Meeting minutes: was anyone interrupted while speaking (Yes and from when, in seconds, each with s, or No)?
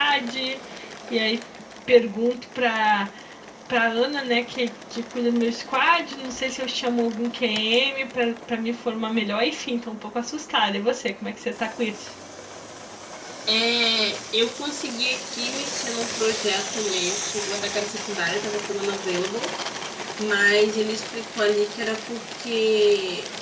No